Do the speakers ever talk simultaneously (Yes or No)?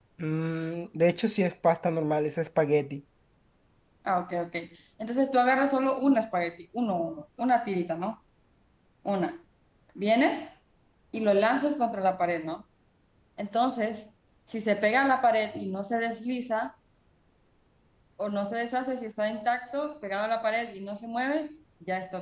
No